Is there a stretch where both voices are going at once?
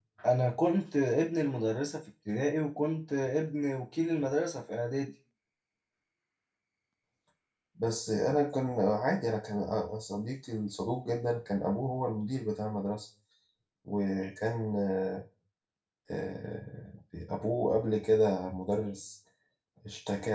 No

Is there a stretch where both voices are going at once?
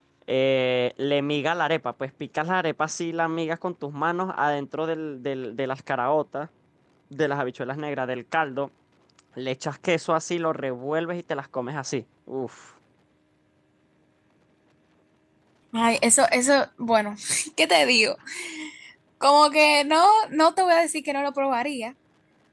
No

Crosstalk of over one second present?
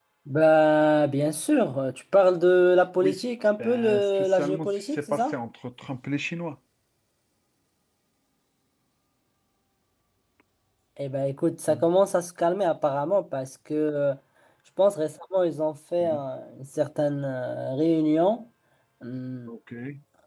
Yes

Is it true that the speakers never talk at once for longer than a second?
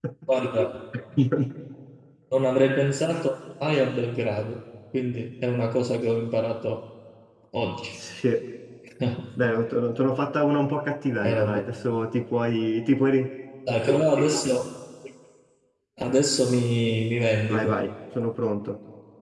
Yes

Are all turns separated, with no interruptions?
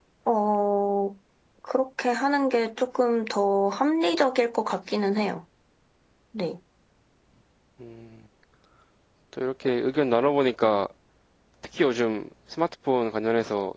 Yes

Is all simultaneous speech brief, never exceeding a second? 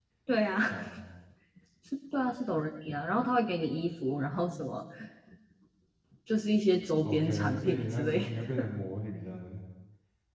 No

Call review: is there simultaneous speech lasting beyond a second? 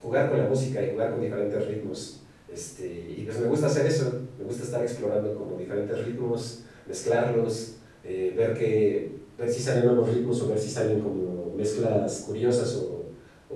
No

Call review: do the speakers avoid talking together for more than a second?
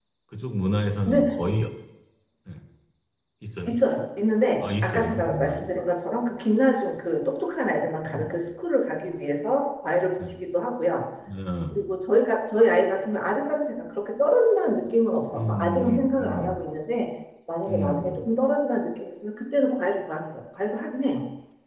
No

